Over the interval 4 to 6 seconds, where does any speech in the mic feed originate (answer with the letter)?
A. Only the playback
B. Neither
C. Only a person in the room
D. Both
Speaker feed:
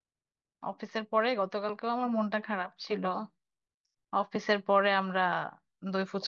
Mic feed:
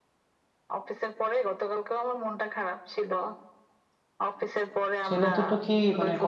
D